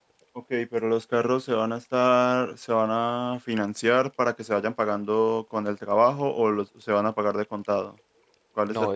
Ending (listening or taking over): taking over